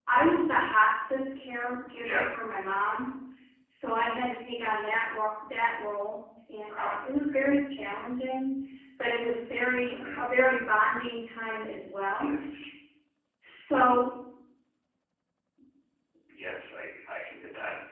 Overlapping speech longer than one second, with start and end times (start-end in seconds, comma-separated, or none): none